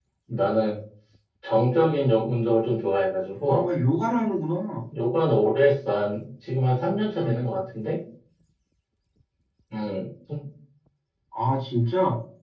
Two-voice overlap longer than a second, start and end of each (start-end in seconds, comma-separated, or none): none